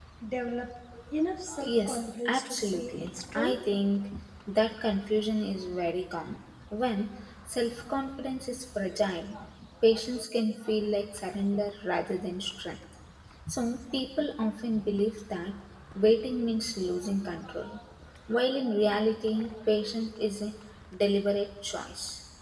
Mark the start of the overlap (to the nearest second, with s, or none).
1 s